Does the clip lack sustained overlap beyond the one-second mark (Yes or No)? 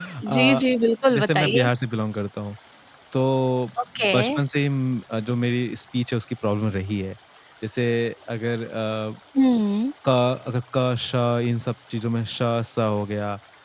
Yes